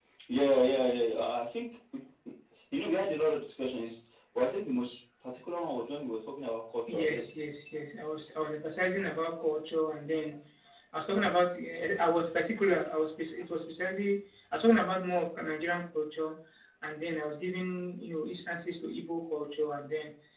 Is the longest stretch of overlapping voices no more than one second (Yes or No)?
Yes